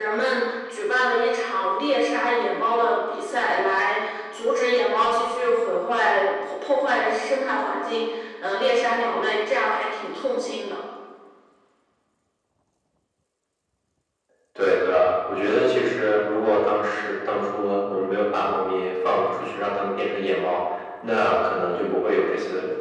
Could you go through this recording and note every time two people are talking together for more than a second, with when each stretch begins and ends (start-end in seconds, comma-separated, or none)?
none